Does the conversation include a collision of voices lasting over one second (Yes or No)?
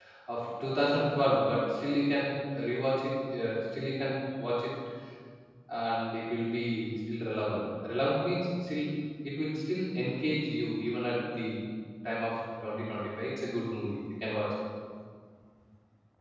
No